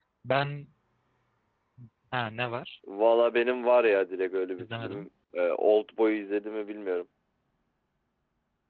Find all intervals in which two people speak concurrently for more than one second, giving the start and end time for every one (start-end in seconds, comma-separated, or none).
none